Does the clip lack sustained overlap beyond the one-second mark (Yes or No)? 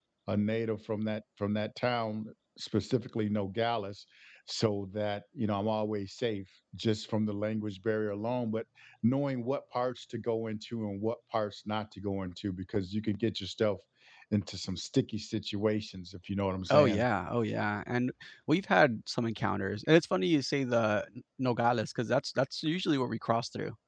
Yes